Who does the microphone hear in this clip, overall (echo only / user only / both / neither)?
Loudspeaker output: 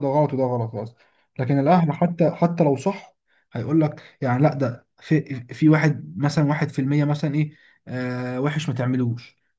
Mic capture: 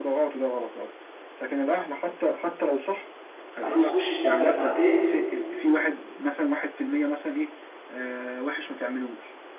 both